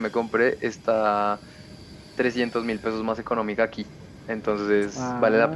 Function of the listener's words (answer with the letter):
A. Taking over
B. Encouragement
A